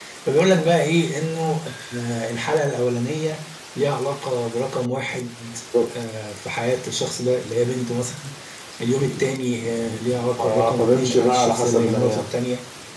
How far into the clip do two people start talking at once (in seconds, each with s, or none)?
10.4 s